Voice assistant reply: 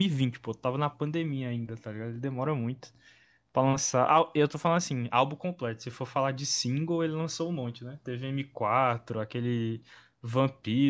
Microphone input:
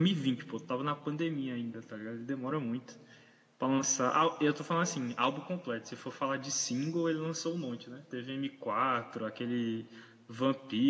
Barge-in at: none

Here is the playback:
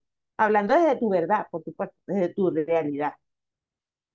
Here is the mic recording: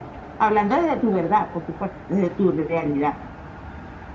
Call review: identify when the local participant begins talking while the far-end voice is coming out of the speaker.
none

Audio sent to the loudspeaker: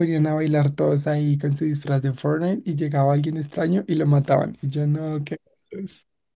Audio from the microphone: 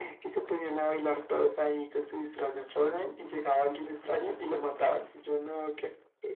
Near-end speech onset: none

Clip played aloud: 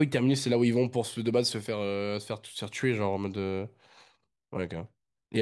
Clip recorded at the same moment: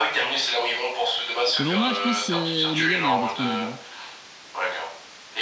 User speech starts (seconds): 1.6 s

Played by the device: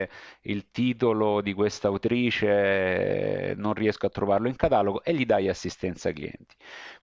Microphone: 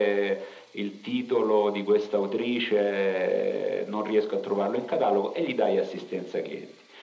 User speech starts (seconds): none

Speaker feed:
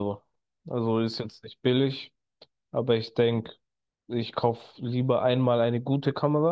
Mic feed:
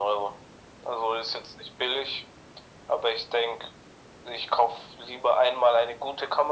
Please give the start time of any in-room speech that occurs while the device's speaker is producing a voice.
none

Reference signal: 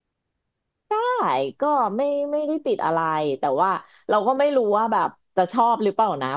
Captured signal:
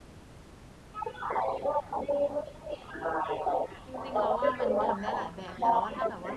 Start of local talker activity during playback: 3.8 s

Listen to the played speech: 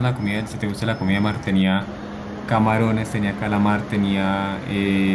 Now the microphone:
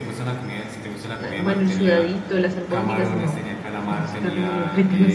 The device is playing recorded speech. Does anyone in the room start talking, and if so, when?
1.2 s

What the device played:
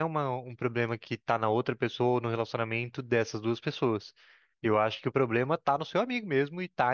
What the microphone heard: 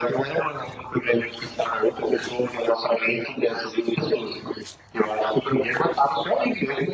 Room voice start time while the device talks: none

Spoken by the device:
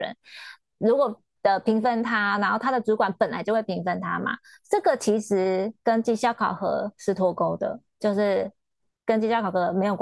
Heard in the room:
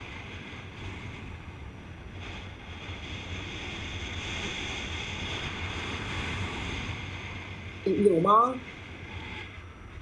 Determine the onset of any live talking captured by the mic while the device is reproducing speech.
7.8 s

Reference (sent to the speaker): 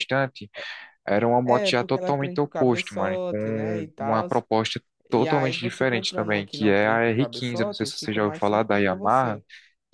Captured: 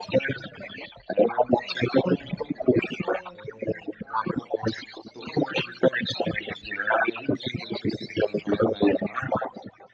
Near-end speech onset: none

